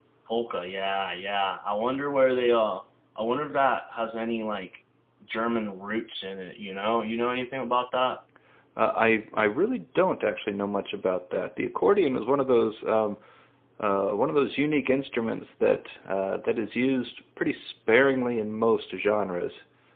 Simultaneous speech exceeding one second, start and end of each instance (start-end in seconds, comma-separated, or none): none